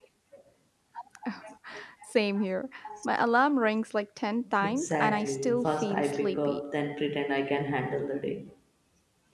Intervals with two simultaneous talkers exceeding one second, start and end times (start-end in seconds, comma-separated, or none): 4.6-6.6